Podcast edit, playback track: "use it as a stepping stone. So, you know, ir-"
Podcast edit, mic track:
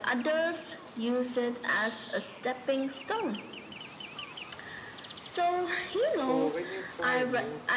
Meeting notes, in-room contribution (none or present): present